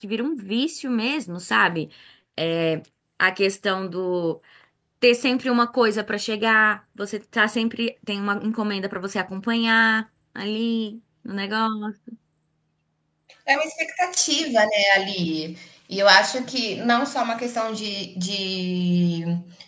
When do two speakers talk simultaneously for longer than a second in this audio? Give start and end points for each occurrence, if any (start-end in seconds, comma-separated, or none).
none